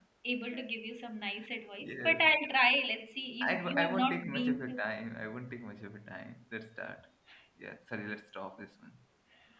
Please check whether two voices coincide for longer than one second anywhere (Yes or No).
Yes